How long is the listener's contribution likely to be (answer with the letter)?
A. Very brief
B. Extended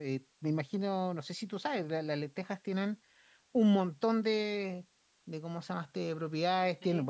A